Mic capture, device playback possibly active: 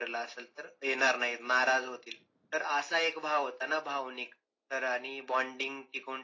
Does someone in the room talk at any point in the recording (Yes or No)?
No